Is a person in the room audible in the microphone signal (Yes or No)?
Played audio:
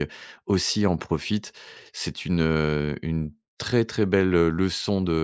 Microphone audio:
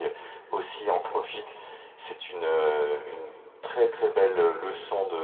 No